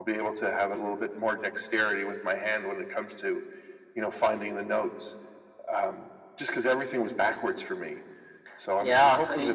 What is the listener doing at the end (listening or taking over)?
taking over